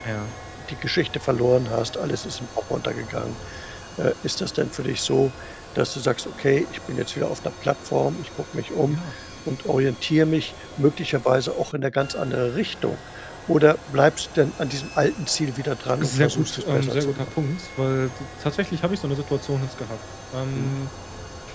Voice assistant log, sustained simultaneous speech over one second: present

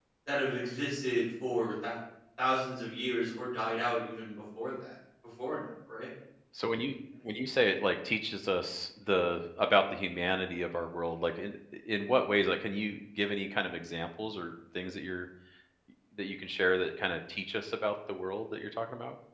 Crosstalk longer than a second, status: none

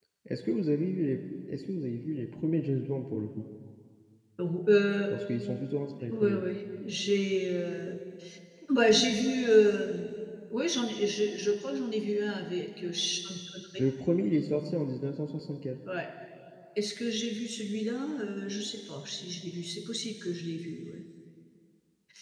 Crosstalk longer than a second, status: none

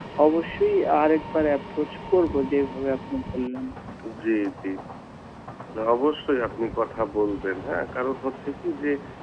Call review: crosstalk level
none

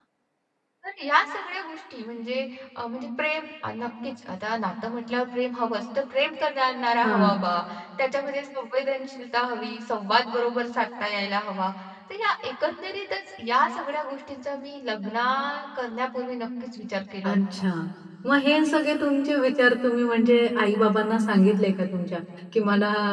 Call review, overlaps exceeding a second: none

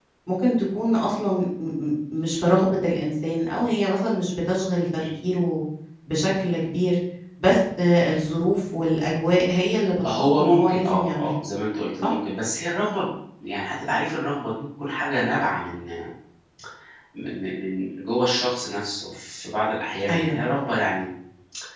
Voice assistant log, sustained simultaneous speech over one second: present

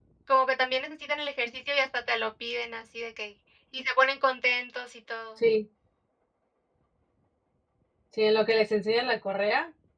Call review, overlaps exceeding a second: none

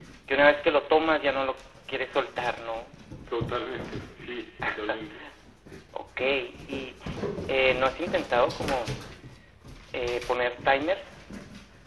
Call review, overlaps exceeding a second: none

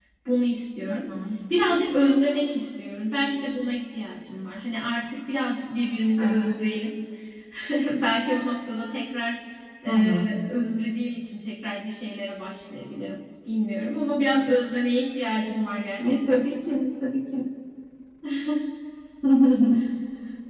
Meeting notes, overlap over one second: none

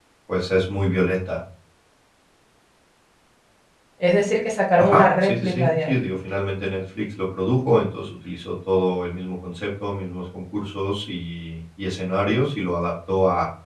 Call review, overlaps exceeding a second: present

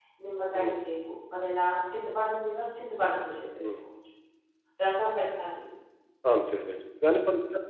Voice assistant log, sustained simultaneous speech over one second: none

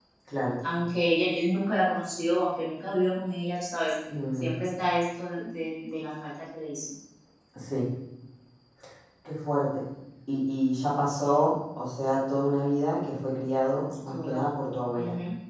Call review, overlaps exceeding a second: none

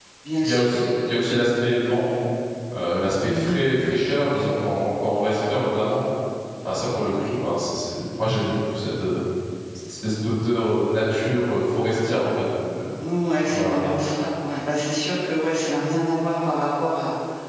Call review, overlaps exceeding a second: none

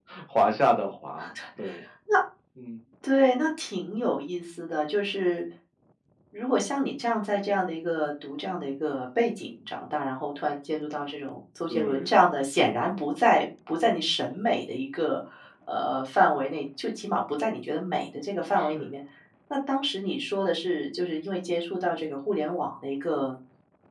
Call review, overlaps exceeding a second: none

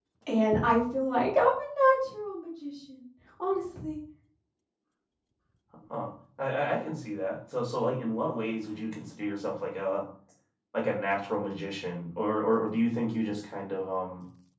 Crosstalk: none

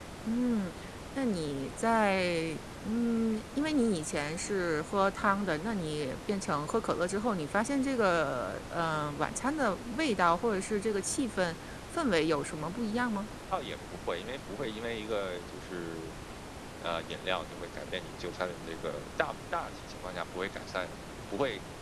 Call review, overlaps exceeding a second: none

